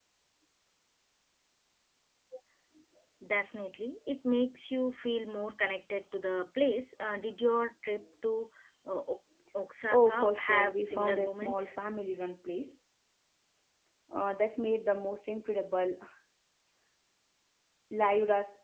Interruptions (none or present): present